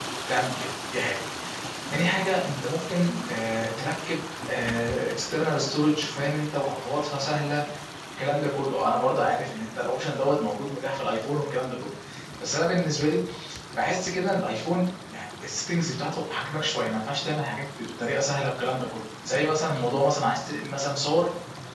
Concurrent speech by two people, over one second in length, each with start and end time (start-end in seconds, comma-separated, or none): none